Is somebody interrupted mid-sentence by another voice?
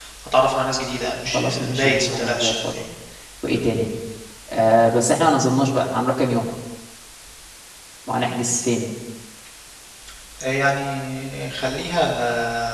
Yes, from 1.2 s

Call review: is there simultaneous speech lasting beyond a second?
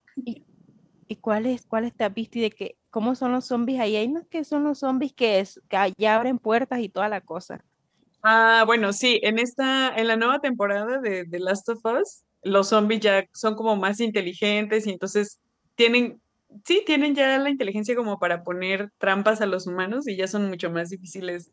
No

